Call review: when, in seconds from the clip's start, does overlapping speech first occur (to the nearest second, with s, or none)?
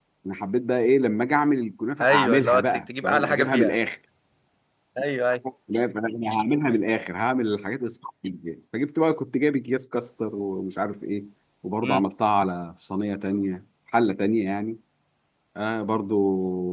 2 s